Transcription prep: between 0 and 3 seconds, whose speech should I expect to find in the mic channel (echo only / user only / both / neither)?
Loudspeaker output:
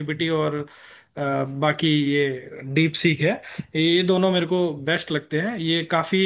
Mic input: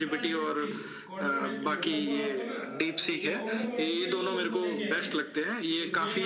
both